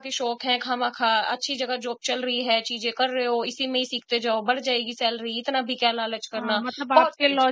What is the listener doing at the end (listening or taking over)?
taking over